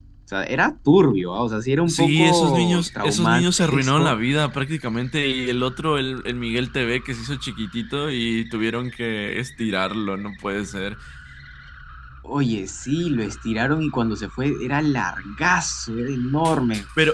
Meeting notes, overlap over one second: present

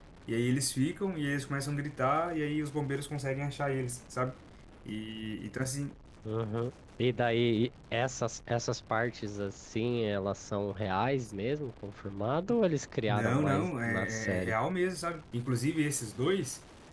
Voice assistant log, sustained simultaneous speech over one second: present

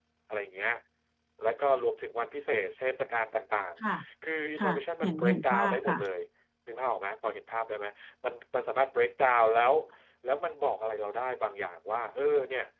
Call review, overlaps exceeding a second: present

